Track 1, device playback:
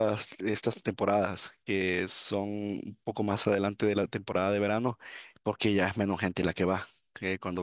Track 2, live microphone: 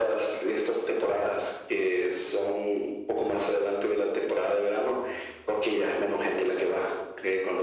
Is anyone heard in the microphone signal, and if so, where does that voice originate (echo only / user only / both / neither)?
echo only